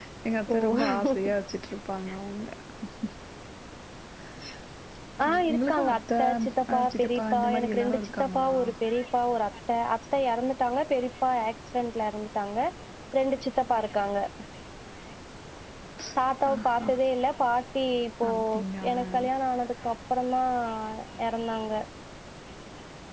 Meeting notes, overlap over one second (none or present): present